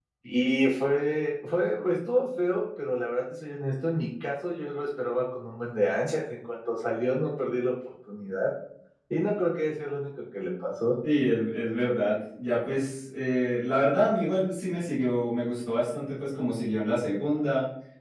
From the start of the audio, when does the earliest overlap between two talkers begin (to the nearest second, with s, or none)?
none